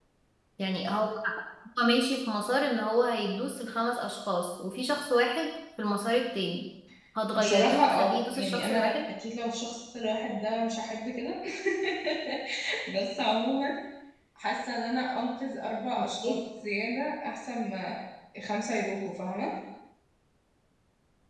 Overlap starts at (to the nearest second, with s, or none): 7 s